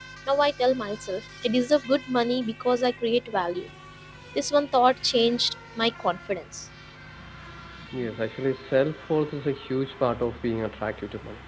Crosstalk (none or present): none